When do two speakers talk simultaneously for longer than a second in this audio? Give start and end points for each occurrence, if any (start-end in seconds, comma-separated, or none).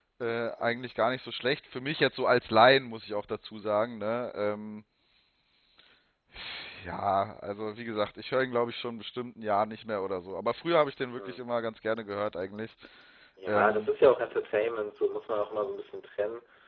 none